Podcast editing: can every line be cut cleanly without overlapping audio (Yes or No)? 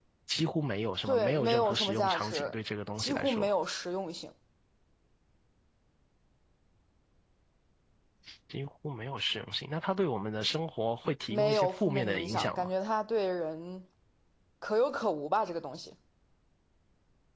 No